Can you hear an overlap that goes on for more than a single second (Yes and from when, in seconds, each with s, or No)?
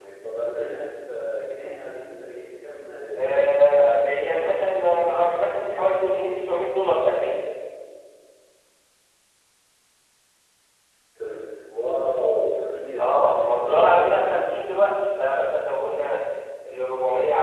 Yes, from 3.2 s